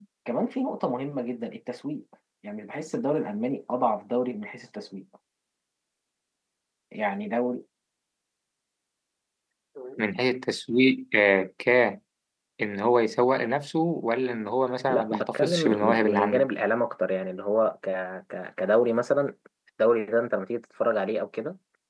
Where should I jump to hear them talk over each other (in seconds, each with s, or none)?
14.9 s